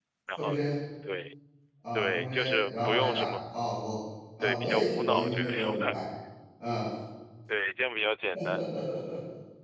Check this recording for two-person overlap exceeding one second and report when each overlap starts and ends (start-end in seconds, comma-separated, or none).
1.9-3.3, 4.4-5.9